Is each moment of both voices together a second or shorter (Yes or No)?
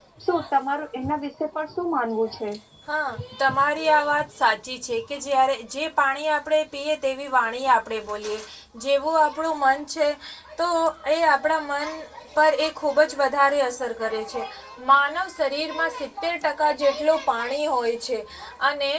Yes